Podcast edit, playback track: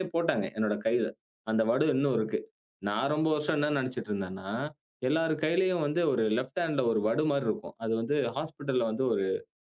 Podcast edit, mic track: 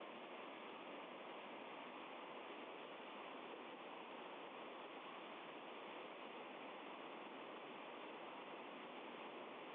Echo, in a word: none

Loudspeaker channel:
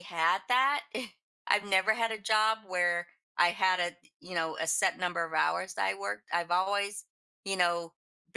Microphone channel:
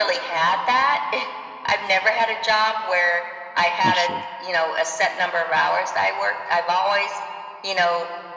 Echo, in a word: present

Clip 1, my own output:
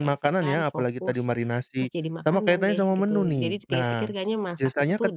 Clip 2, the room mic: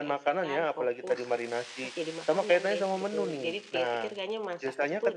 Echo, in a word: present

